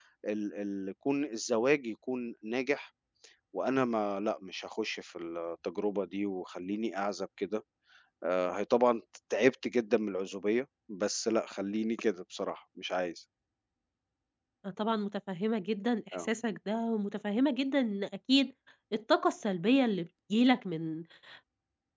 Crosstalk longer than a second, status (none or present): none